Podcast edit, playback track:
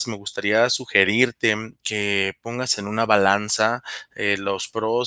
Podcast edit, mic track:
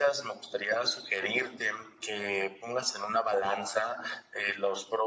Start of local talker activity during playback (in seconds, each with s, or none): none